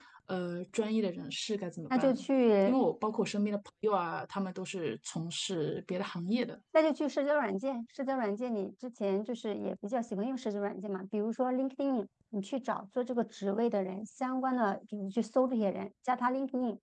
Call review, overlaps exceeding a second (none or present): none